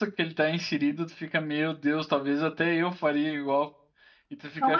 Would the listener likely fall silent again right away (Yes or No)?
No